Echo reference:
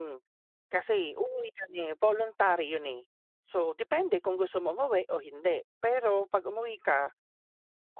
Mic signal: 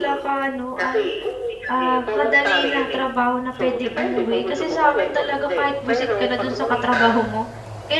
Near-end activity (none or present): present